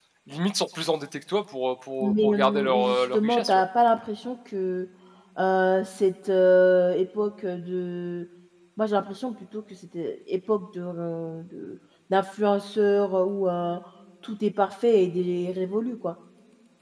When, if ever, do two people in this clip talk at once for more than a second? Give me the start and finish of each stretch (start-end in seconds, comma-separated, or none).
2.0-3.6